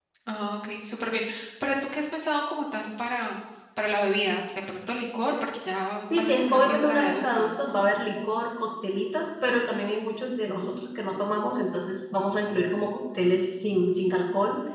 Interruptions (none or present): present